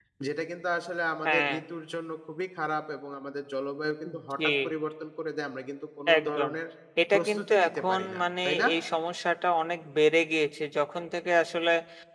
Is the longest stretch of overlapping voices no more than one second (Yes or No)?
No